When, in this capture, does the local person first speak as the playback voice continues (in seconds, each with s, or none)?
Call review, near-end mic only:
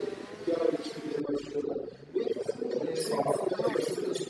2.8 s